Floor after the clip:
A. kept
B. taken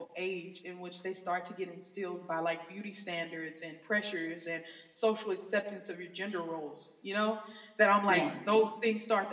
A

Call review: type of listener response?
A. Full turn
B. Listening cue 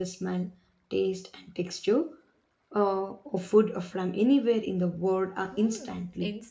A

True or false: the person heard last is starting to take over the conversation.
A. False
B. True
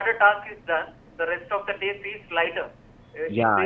A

